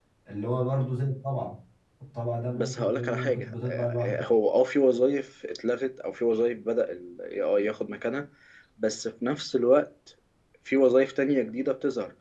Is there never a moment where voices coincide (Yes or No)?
No